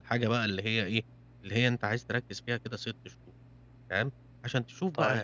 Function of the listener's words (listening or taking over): listening